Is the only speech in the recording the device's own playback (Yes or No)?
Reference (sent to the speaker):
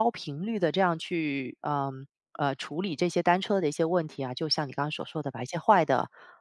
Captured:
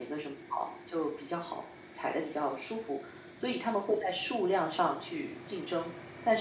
No